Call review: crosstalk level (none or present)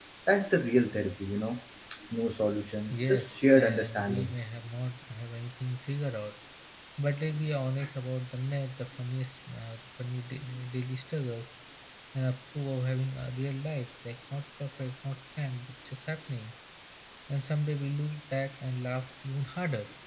present